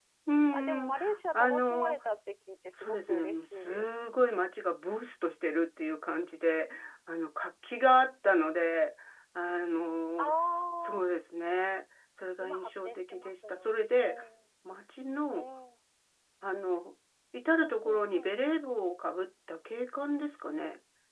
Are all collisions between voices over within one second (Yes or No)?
No